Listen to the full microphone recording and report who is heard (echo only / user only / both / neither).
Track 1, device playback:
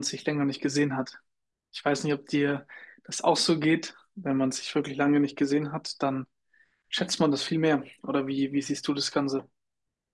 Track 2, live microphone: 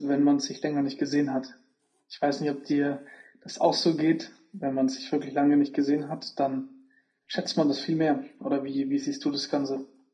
echo only